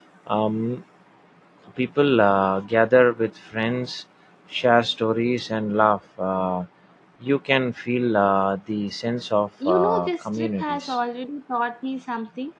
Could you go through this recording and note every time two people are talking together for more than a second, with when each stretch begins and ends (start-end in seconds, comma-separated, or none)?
9.7-11.0